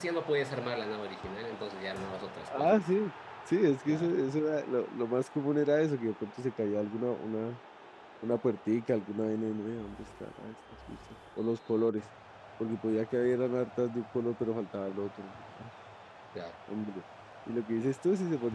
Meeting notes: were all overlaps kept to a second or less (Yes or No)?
Yes